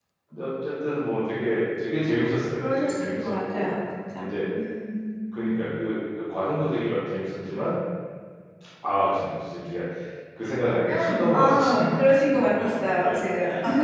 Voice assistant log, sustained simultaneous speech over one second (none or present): present